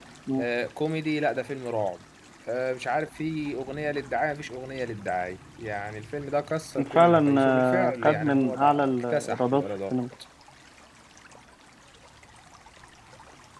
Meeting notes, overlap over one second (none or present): present